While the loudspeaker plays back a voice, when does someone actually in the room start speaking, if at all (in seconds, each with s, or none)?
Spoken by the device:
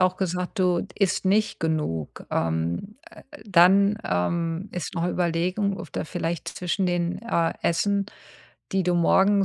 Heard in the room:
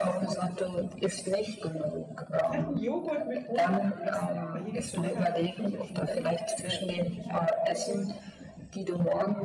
2.4 s